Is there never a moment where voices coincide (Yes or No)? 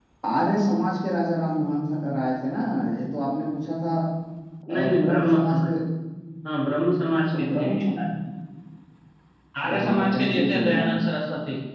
No